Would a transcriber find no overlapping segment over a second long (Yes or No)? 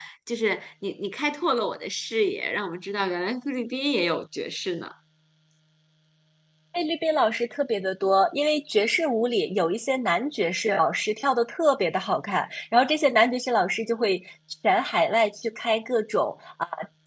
Yes